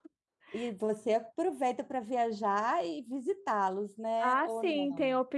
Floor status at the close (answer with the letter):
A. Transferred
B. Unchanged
A